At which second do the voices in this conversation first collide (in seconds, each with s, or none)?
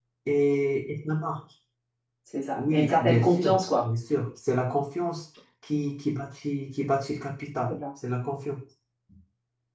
2.5 s